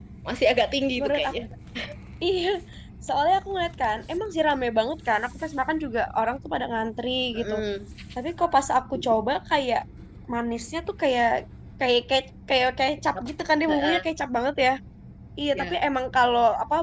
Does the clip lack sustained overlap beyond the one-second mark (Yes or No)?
Yes